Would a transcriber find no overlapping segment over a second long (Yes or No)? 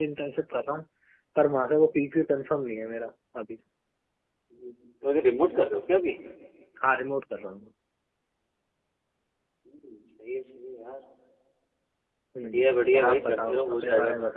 No